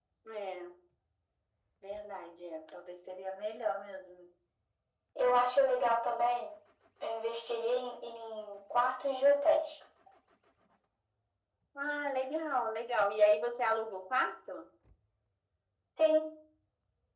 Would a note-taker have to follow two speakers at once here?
No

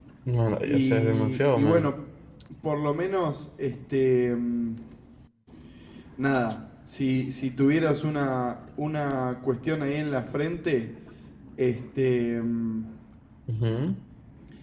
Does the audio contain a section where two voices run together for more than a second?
Yes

